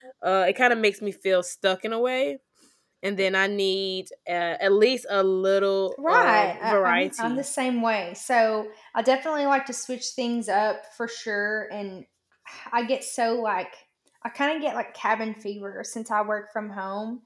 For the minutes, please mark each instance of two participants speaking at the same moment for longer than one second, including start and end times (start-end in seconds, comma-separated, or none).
6.0-7.4